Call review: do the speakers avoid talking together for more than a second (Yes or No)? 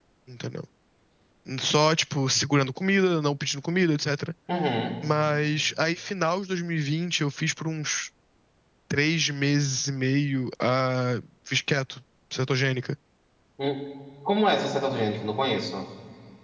Yes